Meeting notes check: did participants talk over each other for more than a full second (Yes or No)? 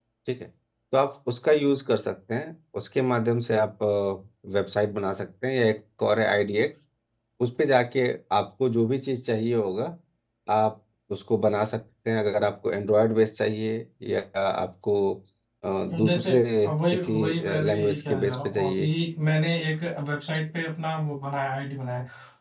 Yes